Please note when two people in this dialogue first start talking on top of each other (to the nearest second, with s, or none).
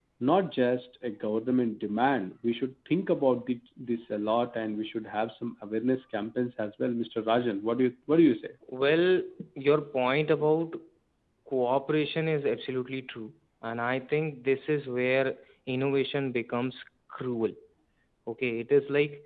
none